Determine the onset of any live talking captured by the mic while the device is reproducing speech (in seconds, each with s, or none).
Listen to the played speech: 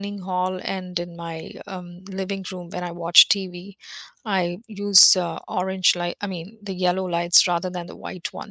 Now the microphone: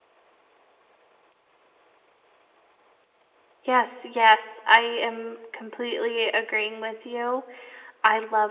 3.6 s